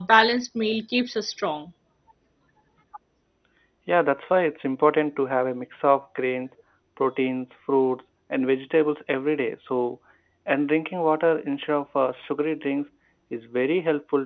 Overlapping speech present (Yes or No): No